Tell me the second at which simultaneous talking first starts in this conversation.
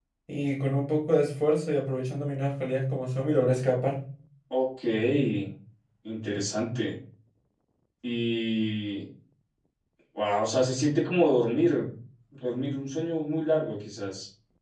none

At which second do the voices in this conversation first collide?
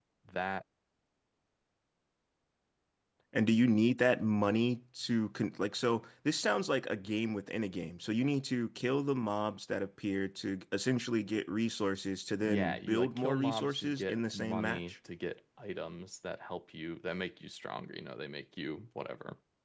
12.4 s

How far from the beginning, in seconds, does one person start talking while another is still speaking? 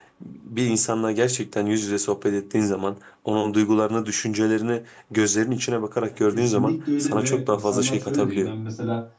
6.1 s

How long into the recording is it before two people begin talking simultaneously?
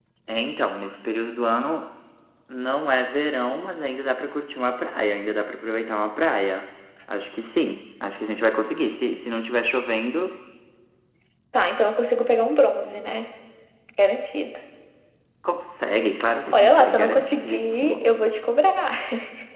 16.5 s

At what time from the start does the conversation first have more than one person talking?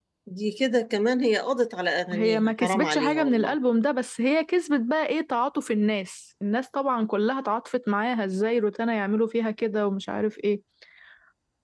2.1 s

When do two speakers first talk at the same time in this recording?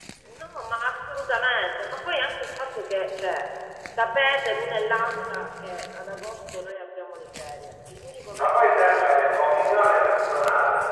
8.4 s

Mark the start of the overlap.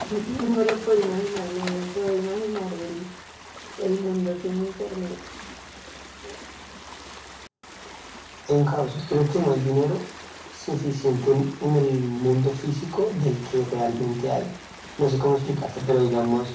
none

